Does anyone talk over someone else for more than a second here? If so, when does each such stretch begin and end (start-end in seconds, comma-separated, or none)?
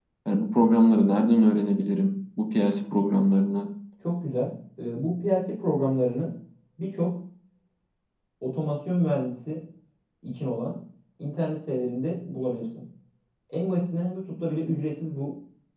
none